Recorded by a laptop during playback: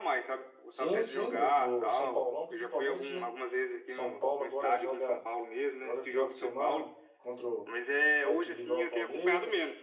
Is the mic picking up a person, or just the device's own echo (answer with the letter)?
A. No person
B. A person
B